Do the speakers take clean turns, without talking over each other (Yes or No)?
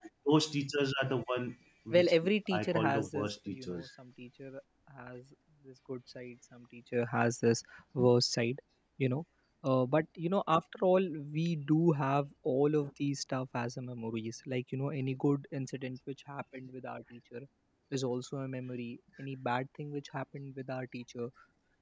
No